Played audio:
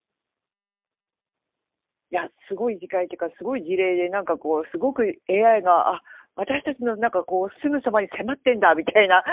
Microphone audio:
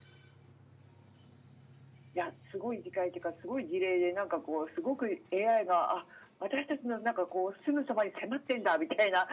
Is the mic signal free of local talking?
Yes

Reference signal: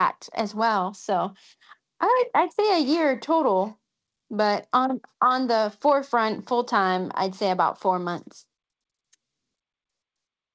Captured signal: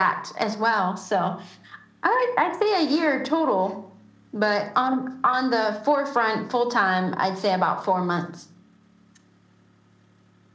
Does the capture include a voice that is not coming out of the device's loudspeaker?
No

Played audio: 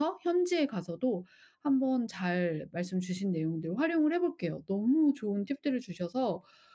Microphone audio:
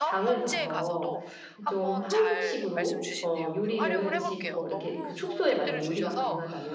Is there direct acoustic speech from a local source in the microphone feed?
Yes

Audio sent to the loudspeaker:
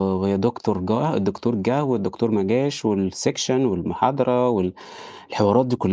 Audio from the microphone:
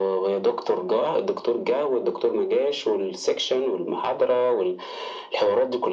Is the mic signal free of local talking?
Yes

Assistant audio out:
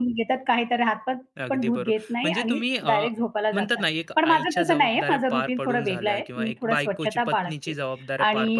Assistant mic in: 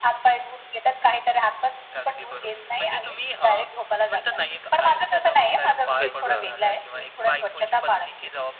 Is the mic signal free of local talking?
No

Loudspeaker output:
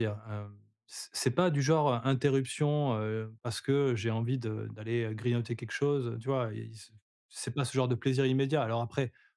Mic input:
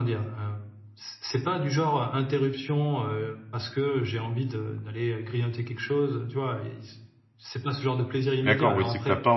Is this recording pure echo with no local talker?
No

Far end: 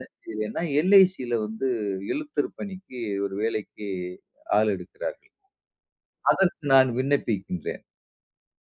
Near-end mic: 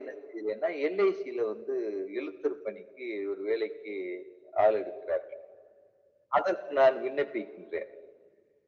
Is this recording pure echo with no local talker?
Yes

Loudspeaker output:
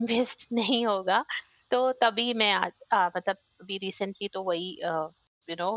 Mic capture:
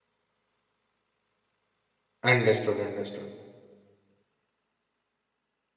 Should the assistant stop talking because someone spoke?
Yes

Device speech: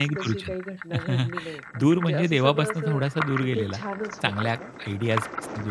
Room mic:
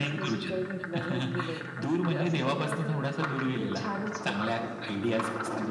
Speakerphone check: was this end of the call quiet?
Yes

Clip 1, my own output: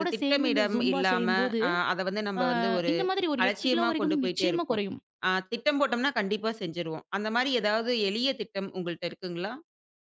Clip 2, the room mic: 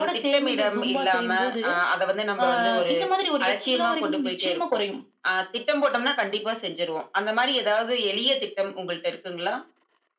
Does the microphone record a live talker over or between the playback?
No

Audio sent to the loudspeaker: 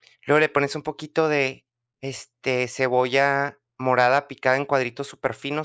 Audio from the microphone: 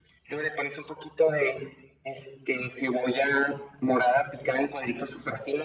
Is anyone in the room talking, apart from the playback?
No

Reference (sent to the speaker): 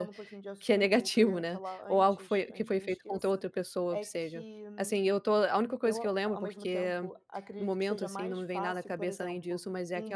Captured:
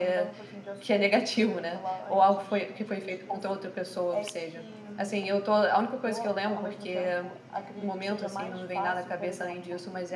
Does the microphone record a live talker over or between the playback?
No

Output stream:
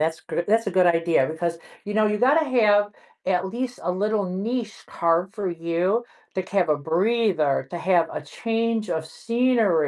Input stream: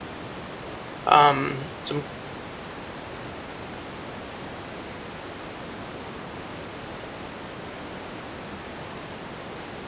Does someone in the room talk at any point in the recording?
Yes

